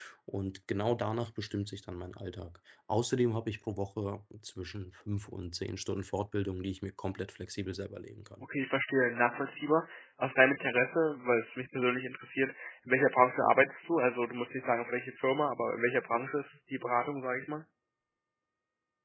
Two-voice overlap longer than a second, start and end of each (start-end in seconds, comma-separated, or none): none